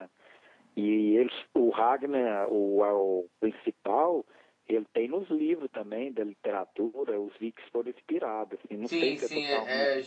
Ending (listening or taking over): taking over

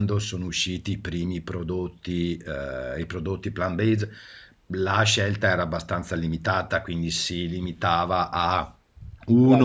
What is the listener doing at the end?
listening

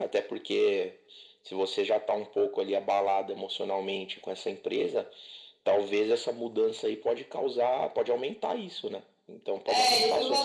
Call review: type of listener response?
taking over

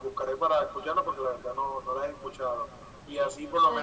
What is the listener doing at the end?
listening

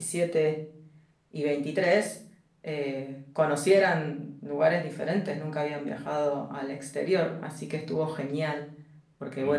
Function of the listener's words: listening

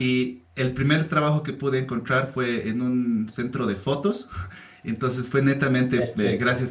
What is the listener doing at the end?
listening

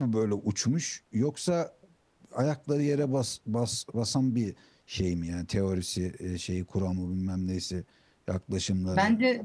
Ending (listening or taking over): taking over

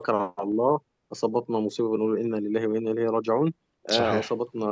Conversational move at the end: listening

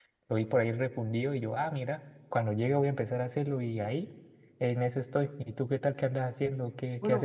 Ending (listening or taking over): taking over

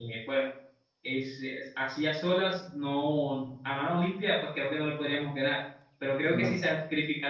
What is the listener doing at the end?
listening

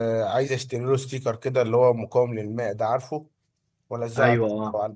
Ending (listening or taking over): listening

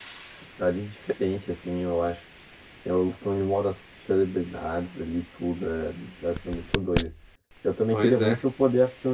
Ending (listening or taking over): listening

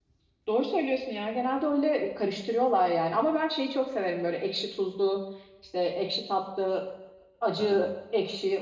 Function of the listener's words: listening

